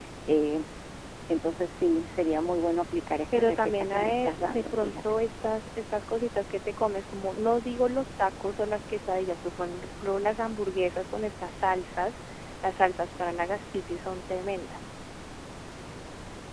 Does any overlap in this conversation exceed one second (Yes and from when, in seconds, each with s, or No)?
Yes, from 3.3 s